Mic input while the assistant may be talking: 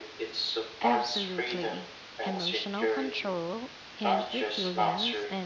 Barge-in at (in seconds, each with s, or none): 0.8 s